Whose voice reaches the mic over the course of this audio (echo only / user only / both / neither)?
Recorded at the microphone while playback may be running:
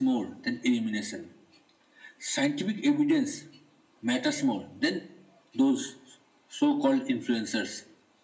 echo only